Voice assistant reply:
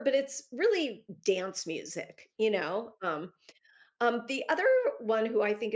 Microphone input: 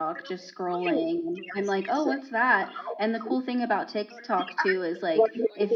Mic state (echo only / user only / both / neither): both